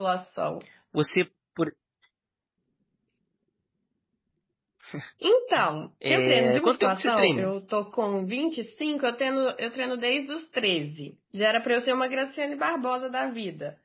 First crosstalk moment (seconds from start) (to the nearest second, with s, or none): 6 s